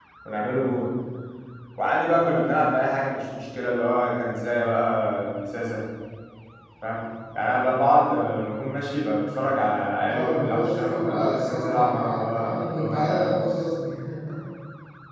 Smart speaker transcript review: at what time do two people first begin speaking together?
10.1 s

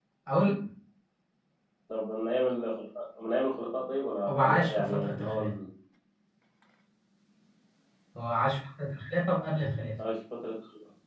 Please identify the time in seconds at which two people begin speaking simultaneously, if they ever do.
4.3 s

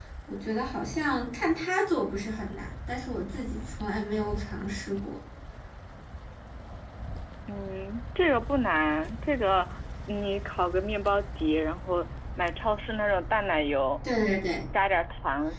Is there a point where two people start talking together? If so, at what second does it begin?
none

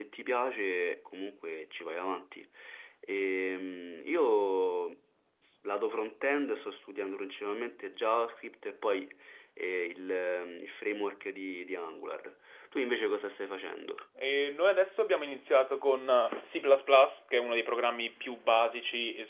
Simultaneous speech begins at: none

